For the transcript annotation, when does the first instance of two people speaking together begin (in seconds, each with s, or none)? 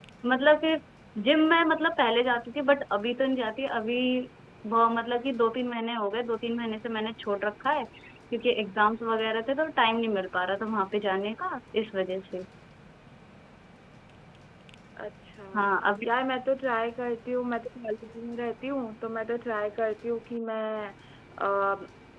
none